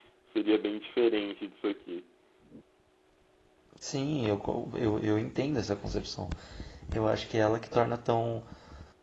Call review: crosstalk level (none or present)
none